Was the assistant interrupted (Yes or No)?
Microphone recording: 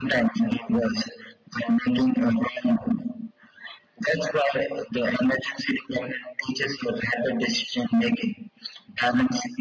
No